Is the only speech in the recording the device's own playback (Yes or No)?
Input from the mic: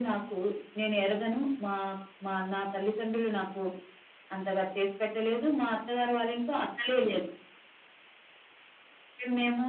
Yes